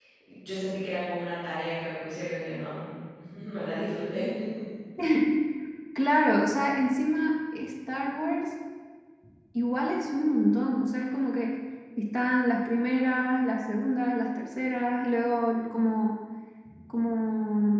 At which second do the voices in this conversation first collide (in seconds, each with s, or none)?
none